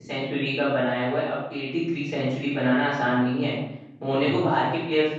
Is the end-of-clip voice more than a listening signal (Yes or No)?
No